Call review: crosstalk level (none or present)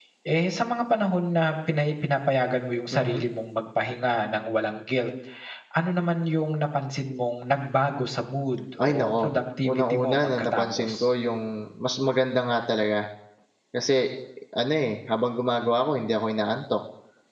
present